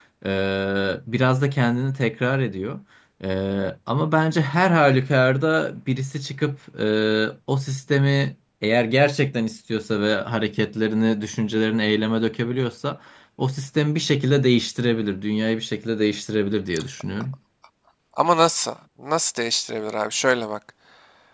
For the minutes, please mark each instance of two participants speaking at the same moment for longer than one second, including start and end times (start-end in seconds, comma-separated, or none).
none